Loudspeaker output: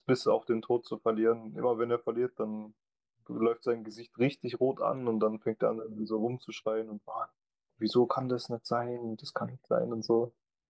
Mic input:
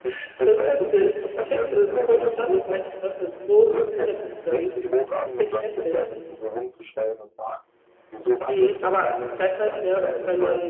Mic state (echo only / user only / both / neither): both